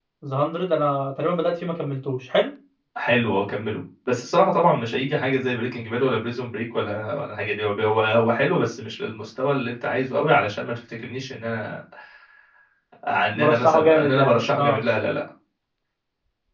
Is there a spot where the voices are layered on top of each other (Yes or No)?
Yes